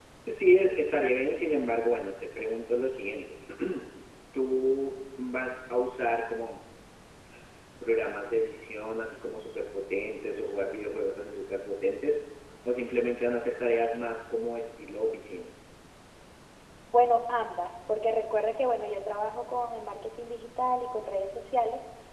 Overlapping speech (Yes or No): No